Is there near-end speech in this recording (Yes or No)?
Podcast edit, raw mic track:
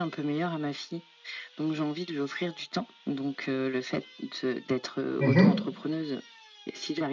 Yes